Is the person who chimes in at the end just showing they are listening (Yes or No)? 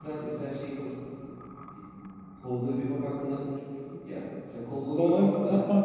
No